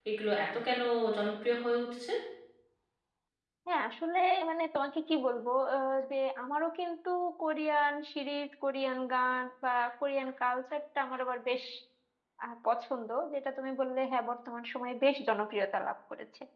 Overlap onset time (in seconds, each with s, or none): none